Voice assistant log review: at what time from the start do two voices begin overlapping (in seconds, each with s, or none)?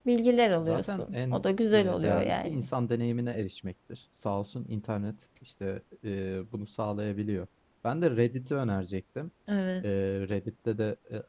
0.6 s